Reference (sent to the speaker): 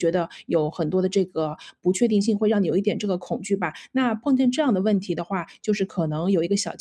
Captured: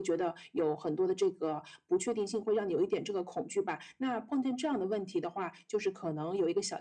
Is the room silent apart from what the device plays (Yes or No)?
Yes